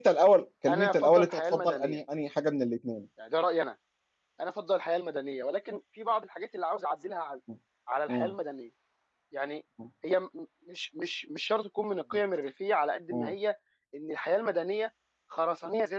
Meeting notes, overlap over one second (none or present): present